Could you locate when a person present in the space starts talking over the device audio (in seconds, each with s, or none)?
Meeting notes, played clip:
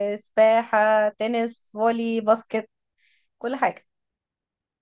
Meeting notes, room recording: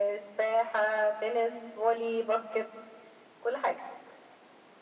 none